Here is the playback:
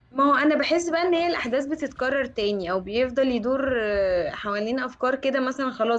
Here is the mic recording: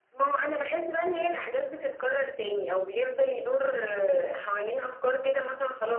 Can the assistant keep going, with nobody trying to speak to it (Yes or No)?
Yes